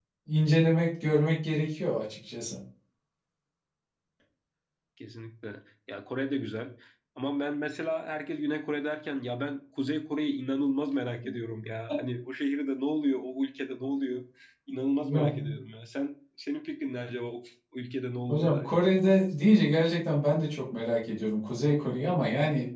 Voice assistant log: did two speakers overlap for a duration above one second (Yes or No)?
No